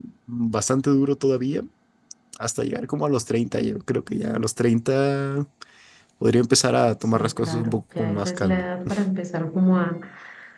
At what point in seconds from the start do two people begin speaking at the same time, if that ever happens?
7.2 s

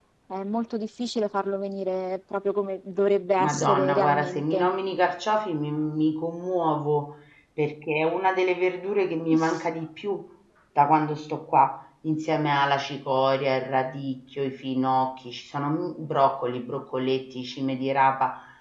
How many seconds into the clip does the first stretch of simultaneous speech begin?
3.4 s

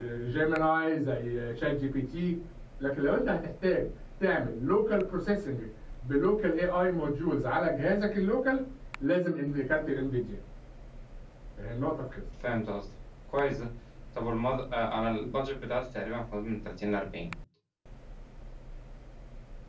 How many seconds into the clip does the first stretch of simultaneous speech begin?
none

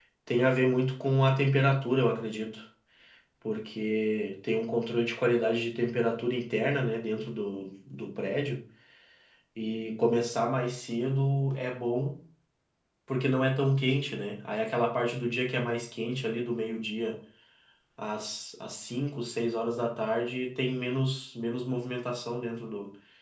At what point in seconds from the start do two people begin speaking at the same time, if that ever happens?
none

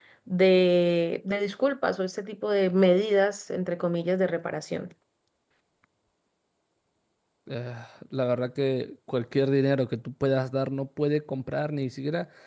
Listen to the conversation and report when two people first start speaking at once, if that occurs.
none

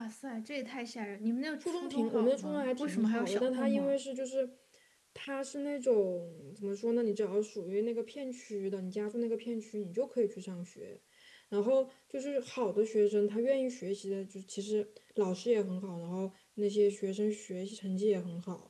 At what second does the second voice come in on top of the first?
1.6 s

